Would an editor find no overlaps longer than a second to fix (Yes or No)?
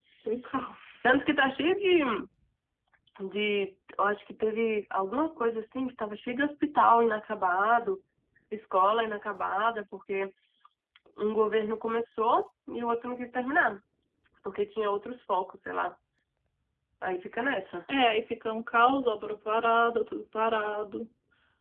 Yes